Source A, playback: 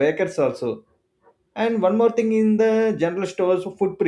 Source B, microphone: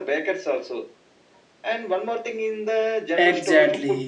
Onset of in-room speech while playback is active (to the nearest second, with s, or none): 3 s